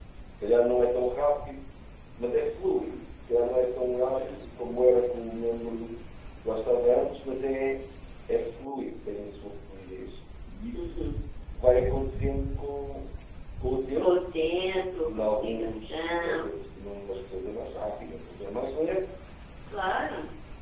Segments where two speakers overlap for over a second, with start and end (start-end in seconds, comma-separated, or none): 15.1-16.5